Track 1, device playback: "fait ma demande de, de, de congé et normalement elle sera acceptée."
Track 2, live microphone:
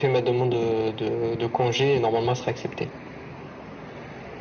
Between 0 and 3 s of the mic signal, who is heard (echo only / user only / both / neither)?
echo only